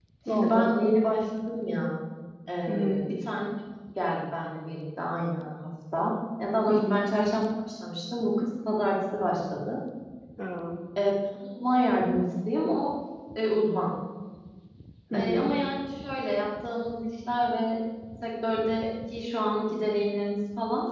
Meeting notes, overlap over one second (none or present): none